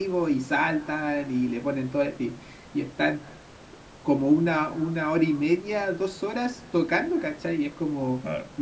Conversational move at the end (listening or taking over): listening